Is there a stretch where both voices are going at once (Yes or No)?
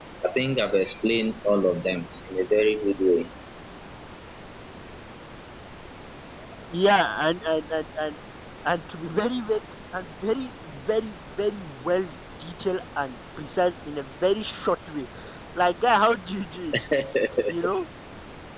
No